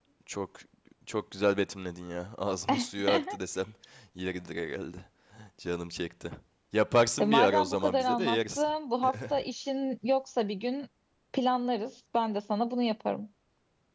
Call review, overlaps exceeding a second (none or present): present